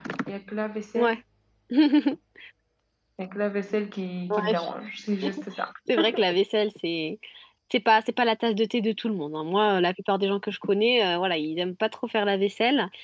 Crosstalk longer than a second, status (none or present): none